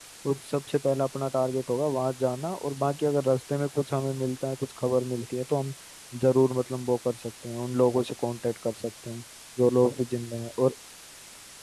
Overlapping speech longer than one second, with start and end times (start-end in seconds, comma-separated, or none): none